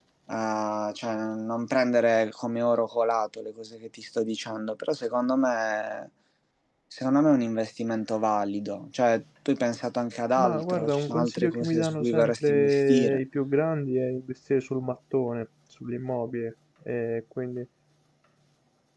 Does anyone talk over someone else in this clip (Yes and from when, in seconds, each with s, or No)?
Yes, from 10.4 s